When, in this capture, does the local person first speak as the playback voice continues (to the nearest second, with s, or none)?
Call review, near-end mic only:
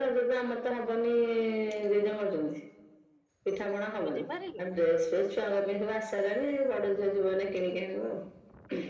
4 s